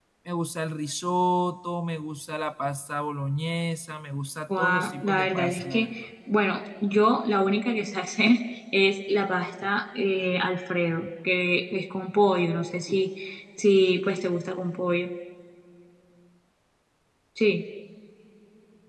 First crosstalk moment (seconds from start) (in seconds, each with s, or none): 4.5 s